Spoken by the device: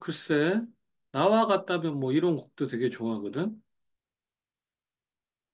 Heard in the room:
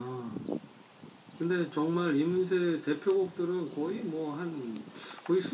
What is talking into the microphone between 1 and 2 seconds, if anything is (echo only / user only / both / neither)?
user only